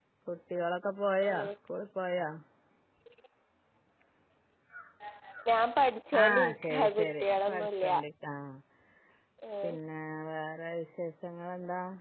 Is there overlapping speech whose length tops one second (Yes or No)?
Yes